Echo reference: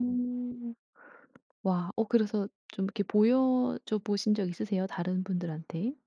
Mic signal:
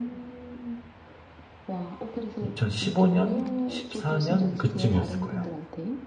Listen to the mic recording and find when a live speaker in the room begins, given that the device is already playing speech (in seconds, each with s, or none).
2.4 s